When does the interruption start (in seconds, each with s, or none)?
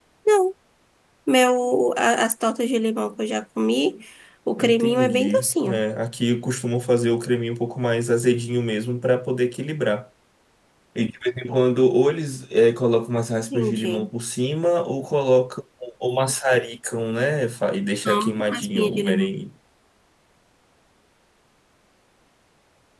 4.6 s